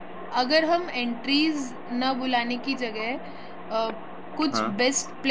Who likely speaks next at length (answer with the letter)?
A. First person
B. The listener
A